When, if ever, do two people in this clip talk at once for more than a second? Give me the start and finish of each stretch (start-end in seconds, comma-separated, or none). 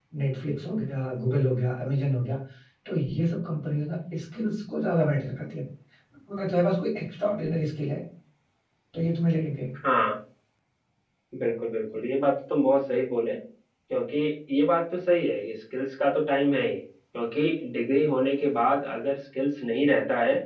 none